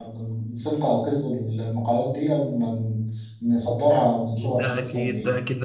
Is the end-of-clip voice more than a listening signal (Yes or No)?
Yes